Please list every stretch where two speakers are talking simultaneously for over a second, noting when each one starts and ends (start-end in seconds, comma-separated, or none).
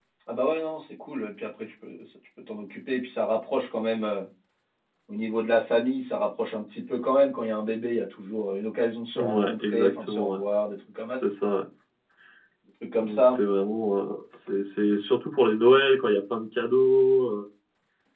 9.2-10.4